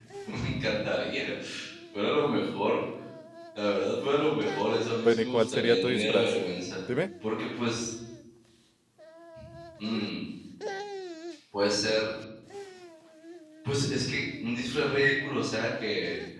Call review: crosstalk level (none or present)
present